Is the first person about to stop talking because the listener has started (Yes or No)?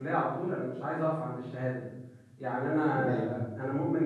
No